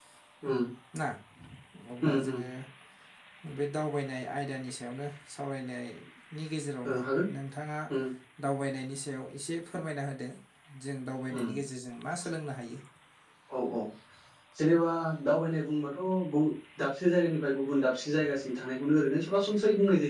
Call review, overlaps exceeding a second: none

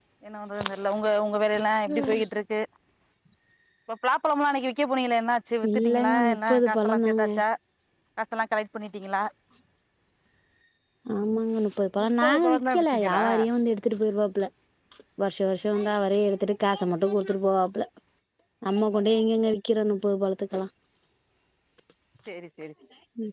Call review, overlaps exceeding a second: present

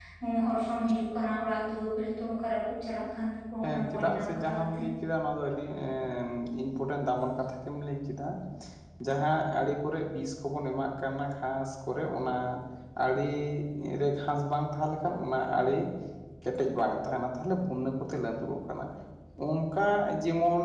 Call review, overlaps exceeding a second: present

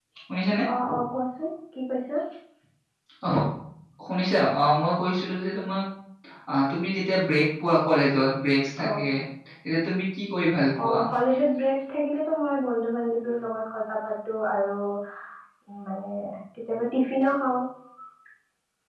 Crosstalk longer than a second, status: none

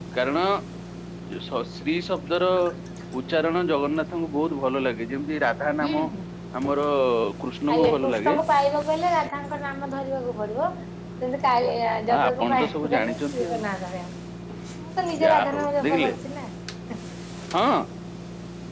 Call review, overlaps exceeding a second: present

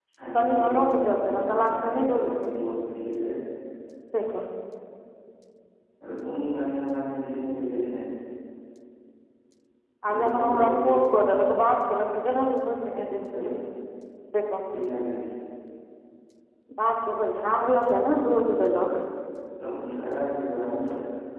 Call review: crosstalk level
present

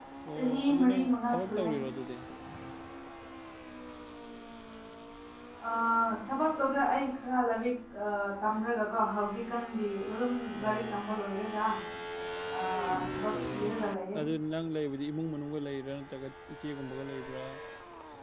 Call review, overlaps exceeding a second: present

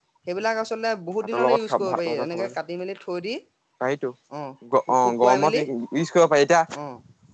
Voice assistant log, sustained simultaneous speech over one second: present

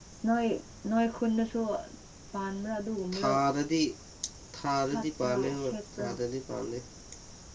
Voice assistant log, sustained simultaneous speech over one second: present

